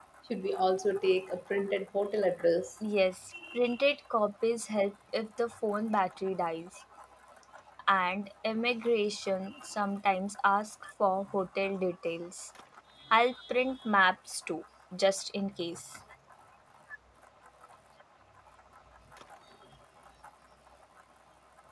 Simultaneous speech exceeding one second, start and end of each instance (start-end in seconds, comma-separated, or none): none